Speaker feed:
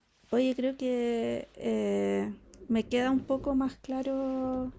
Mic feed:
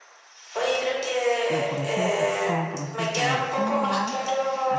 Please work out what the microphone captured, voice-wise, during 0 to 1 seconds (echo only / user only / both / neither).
echo only